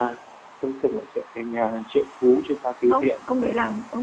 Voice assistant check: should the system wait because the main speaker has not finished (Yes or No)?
No